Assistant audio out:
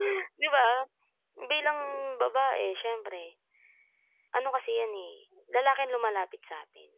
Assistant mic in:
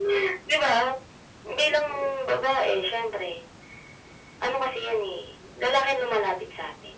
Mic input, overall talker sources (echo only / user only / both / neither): echo only